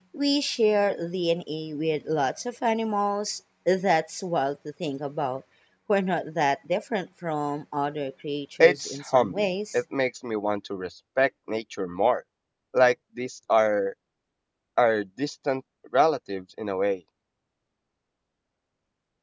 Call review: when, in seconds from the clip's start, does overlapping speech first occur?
8.6 s

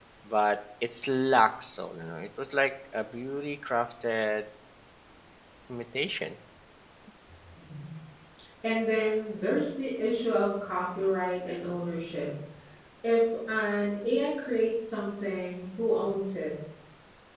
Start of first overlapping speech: none

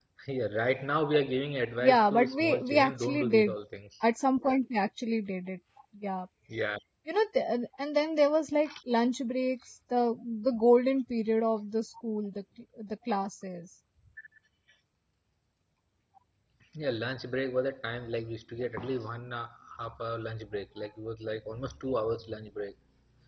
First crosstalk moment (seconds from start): 1.8 s

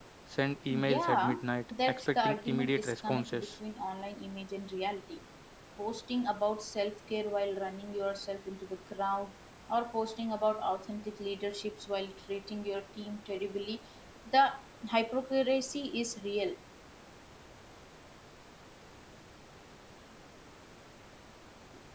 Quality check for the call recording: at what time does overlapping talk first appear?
0.7 s

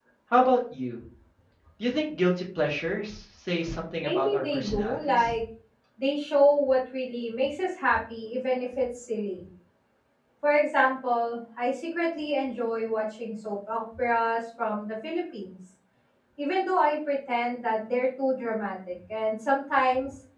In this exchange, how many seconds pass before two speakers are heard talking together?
4.0 s

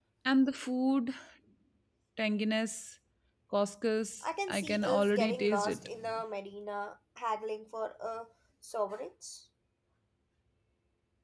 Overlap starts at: 4.5 s

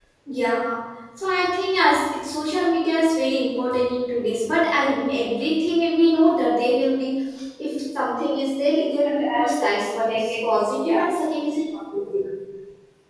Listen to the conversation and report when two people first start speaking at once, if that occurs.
8.9 s

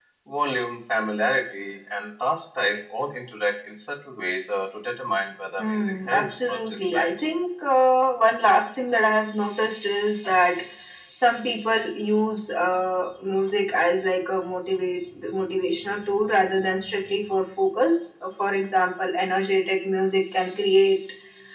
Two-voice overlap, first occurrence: 5.6 s

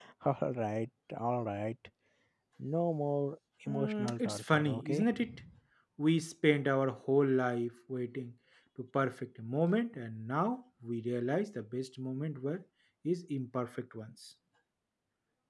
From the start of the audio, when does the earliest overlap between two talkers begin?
3.7 s

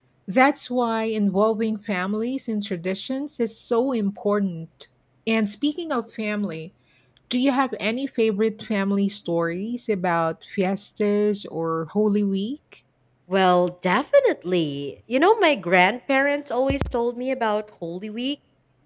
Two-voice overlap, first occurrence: none

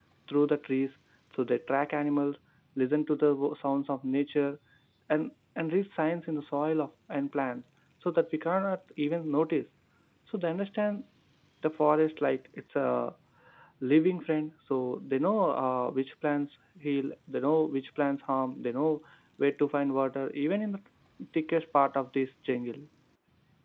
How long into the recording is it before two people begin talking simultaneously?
none

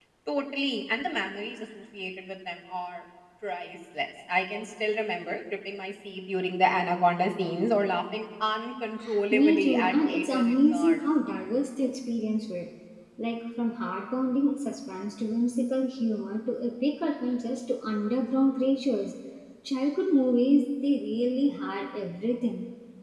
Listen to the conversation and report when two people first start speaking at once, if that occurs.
9.3 s

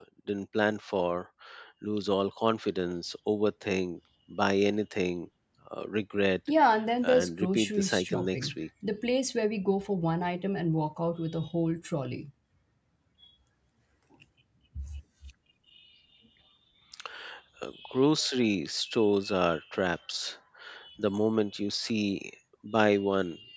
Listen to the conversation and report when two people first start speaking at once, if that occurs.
7.0 s

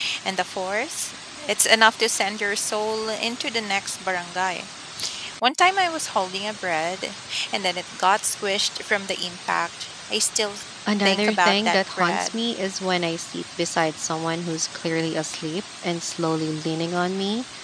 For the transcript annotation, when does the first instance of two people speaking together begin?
11.0 s

